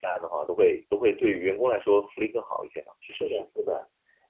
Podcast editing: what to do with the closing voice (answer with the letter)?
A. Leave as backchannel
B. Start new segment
B